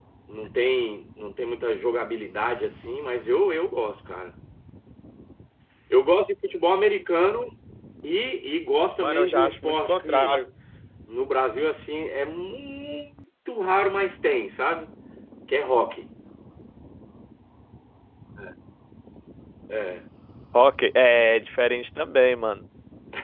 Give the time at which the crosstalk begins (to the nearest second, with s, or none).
9 s